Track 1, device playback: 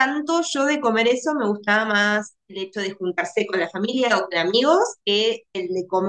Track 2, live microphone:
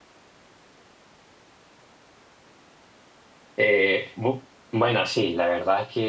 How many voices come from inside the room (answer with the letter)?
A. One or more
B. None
A